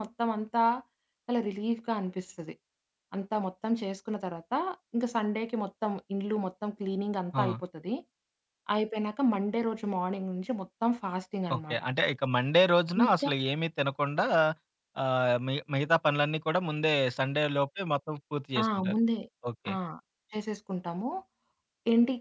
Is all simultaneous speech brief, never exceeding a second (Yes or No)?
Yes